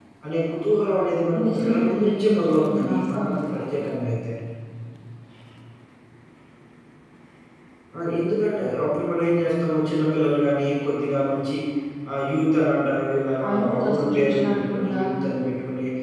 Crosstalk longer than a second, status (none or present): present